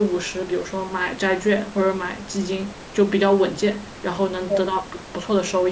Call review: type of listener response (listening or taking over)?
listening